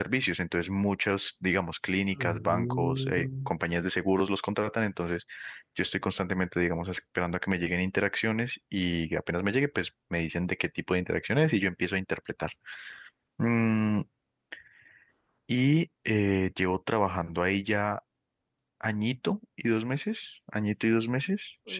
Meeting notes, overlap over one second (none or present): present